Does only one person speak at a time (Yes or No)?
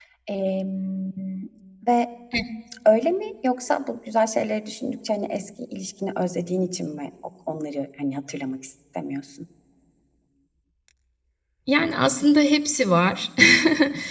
Yes